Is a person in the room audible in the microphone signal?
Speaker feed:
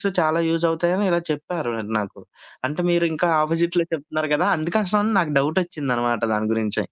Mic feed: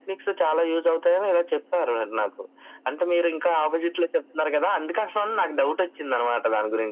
No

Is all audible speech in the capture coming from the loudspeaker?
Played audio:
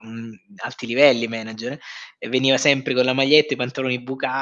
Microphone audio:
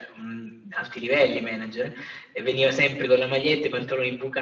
Yes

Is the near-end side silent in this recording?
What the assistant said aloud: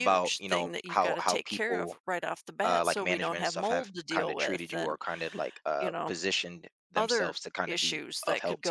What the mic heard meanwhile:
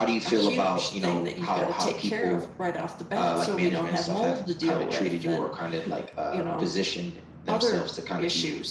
Yes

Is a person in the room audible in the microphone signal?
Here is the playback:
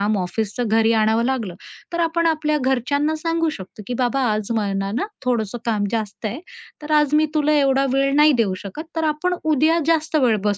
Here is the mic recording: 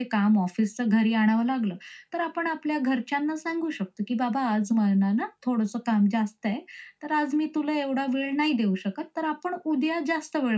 No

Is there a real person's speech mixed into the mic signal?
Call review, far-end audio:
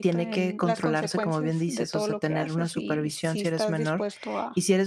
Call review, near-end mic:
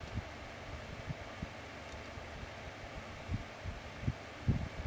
No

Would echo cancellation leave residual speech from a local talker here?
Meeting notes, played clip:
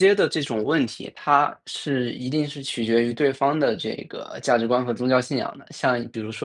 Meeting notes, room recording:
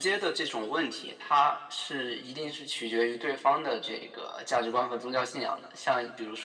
No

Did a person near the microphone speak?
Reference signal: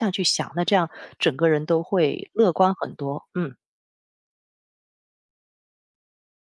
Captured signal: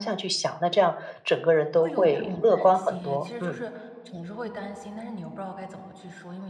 Yes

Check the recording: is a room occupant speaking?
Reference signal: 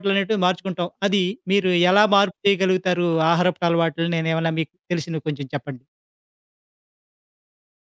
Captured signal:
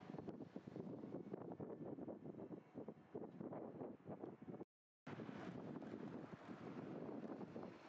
No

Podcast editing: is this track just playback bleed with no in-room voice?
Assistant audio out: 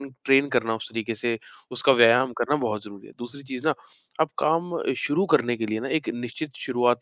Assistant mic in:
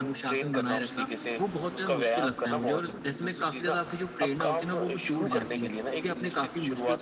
No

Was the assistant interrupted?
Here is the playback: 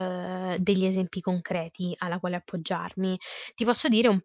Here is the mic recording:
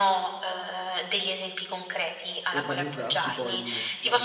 Yes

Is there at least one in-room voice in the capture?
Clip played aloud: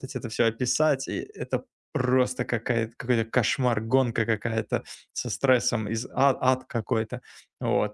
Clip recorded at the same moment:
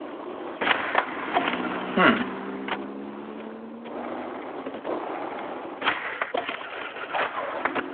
Yes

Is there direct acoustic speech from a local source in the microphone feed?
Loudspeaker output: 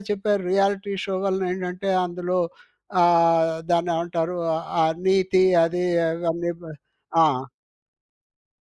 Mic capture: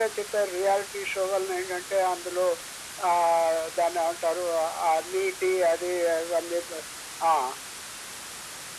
No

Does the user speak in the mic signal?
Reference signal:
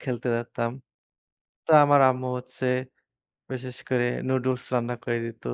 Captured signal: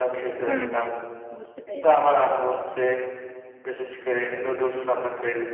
Yes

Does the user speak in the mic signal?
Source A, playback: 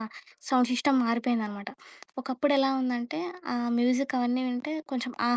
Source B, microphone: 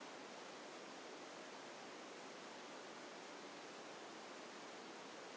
No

